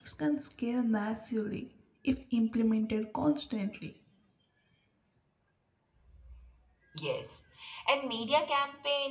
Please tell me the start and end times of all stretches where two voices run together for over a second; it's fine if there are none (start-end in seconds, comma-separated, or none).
none